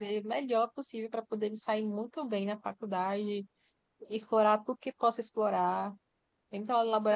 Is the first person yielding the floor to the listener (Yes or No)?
No